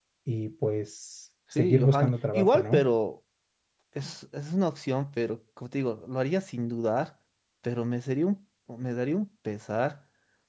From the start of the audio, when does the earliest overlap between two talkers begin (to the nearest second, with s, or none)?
2 s